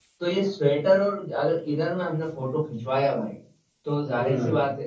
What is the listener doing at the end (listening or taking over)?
listening